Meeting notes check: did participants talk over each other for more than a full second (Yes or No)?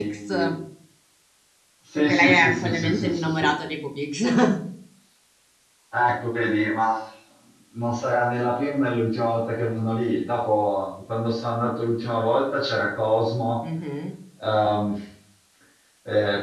Yes